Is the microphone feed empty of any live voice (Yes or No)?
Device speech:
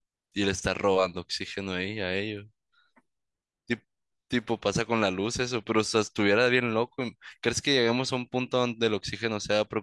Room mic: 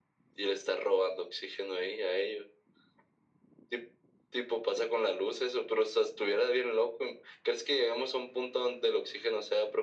Yes